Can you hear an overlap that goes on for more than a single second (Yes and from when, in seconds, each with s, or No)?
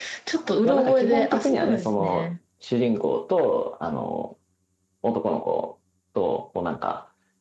Yes, from 0.6 s